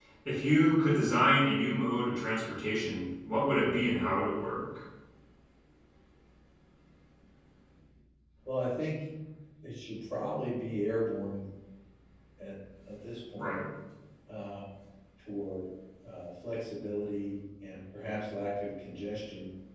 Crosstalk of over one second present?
No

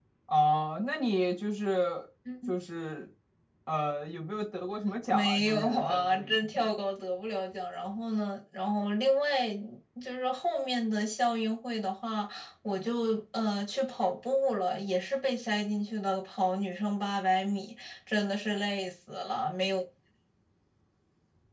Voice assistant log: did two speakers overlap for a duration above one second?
Yes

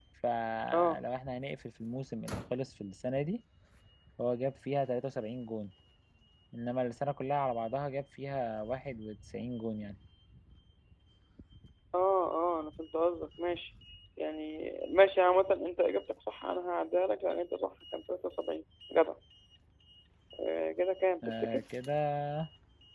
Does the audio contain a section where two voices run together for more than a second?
No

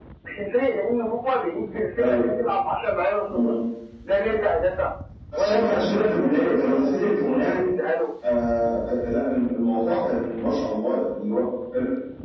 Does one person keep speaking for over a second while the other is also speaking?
Yes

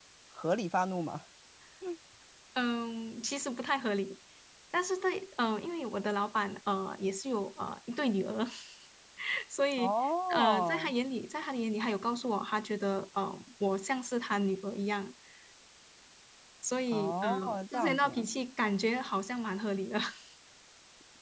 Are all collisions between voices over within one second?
No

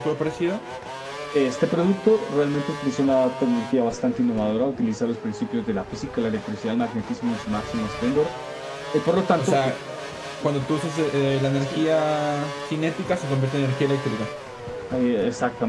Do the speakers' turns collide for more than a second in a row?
No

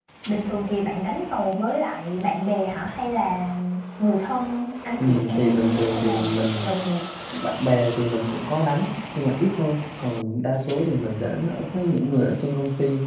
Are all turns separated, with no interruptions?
No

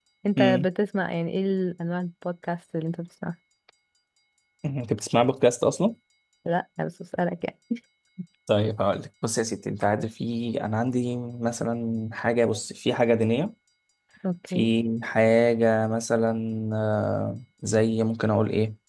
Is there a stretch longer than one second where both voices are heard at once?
No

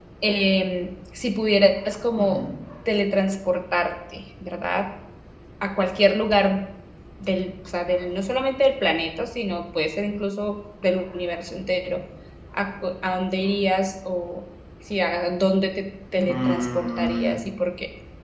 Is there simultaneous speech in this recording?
Yes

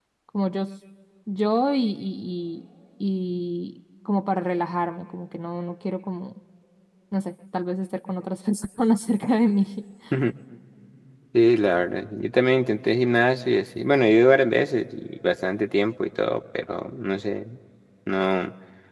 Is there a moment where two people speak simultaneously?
No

